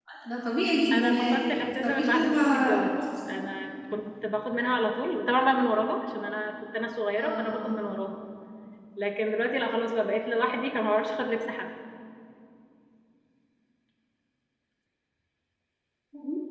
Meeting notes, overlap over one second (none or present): present